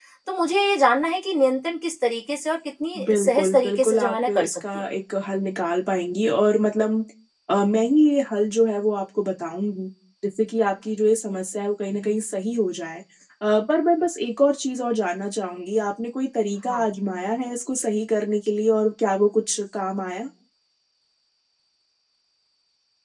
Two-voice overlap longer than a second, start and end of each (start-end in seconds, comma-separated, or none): 3.1-4.8